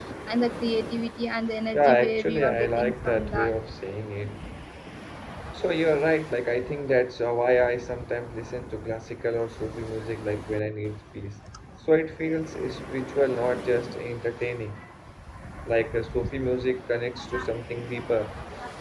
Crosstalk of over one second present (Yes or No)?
Yes